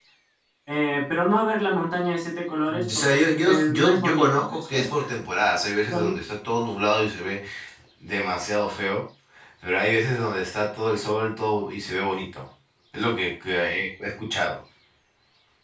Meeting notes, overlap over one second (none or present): present